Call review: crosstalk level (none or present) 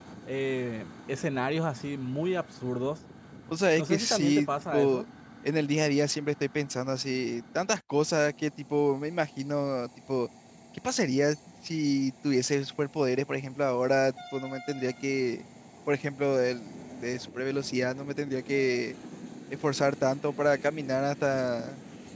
present